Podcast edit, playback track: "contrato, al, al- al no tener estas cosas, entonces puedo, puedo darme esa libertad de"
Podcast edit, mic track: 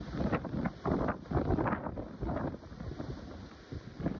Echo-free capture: Yes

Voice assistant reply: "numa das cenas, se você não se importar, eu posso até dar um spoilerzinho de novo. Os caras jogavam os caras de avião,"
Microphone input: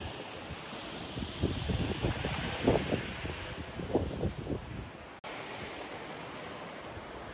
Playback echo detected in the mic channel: No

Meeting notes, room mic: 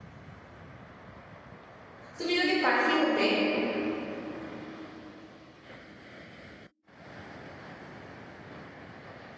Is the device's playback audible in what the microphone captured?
No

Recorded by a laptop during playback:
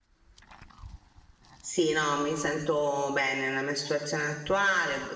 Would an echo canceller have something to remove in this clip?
No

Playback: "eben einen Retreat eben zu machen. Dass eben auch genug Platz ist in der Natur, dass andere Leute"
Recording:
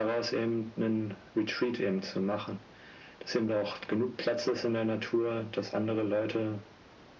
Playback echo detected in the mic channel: Yes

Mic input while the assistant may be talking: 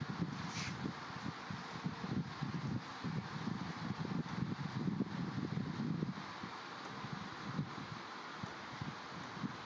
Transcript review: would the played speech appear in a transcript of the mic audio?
No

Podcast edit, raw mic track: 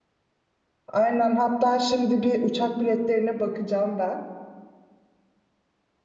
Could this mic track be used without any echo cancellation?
Yes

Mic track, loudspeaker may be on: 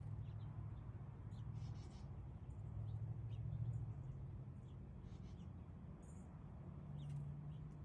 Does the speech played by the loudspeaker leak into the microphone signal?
No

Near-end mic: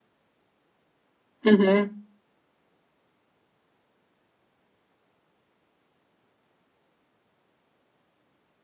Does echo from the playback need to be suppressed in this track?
No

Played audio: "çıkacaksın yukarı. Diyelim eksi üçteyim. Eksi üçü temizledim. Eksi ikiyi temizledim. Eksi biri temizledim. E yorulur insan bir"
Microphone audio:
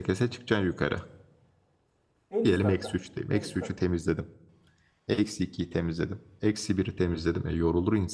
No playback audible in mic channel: No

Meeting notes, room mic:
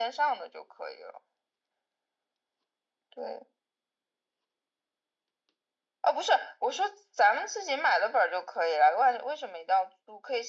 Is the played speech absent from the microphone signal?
No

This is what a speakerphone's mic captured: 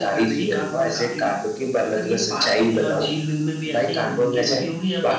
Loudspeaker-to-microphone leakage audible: Yes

